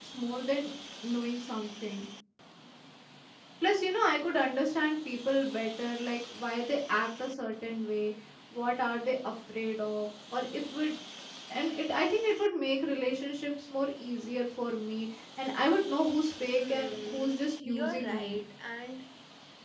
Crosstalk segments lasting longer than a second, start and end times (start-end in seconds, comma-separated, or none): 16.5-18.4